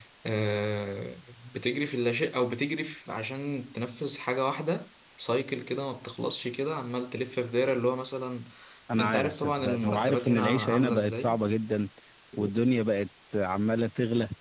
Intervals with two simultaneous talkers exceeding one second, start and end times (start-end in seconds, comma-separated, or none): 9.0-11.4